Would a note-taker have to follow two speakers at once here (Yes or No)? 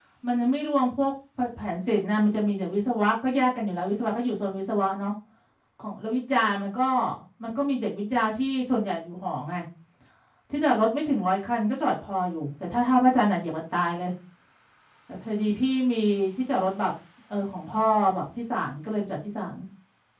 No